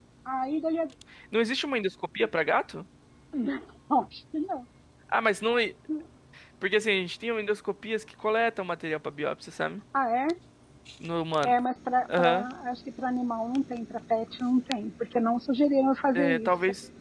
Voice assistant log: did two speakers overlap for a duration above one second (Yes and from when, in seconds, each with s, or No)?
No